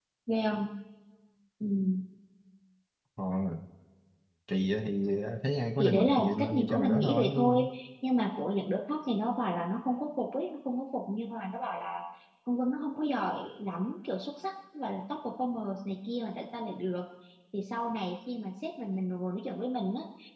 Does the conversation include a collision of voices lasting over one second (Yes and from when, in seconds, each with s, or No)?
Yes, from 5.8 s